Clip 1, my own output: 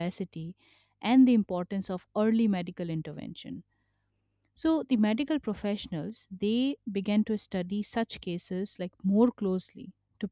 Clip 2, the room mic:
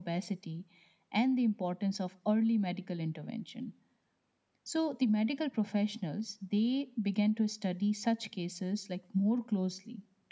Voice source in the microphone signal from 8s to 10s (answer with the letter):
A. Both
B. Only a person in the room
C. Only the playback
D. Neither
C